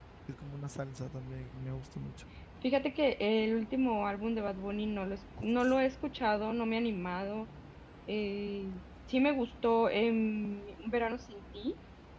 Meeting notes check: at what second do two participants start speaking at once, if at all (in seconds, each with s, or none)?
none